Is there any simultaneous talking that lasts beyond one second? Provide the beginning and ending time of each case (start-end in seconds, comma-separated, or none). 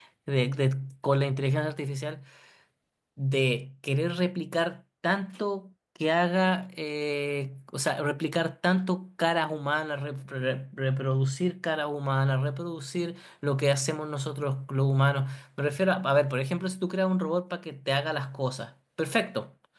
none